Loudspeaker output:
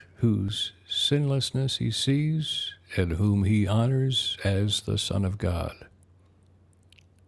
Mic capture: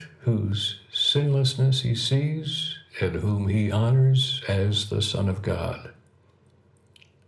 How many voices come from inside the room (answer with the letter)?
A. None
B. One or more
A